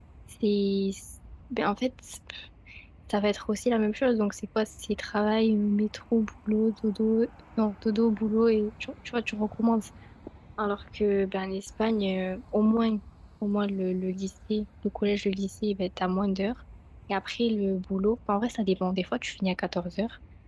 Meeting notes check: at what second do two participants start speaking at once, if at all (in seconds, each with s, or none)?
none